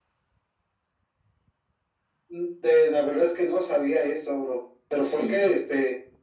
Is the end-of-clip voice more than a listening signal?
No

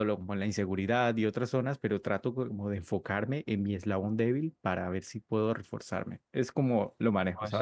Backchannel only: No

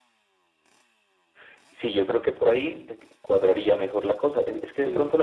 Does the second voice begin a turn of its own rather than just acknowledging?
No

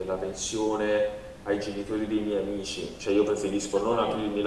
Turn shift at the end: No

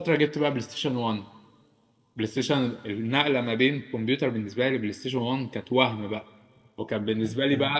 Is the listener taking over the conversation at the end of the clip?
No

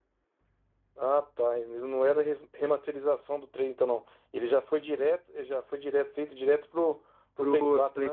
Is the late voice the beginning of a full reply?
Yes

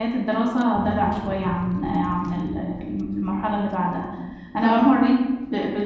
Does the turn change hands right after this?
No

